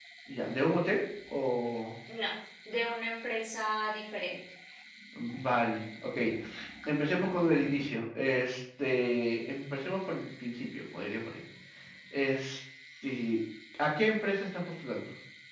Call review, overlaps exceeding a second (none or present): none